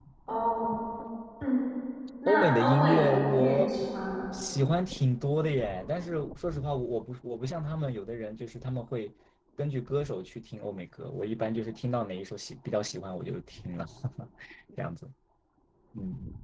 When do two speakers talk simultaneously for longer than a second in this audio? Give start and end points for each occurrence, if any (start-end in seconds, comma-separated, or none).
2.3-3.7